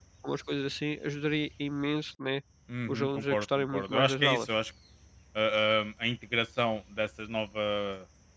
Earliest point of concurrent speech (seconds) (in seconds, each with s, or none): 2.9 s